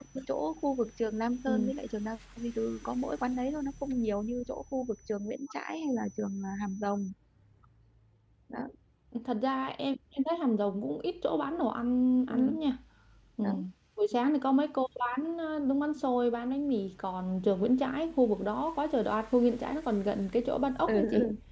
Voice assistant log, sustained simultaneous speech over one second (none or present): none